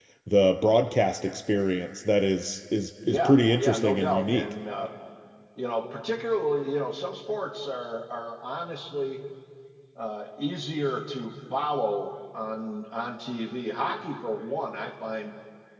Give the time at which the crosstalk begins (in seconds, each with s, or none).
3.0 s